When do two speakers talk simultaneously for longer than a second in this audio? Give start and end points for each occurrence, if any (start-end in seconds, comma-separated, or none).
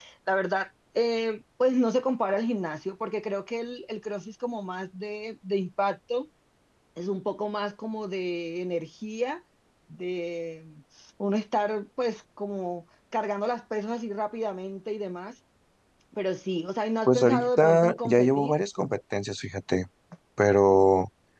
17.1-18.5